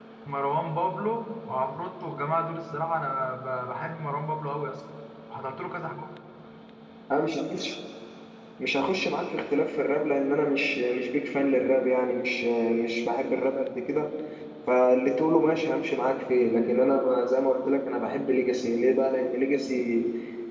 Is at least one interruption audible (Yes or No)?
No